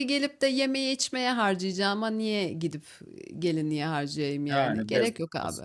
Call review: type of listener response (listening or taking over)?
taking over